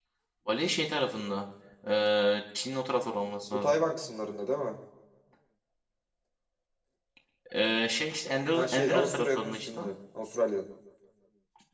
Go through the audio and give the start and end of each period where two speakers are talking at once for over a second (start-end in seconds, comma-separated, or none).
8.5-9.8